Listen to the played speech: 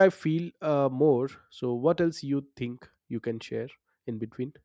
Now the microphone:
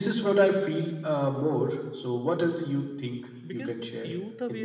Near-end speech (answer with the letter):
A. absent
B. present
B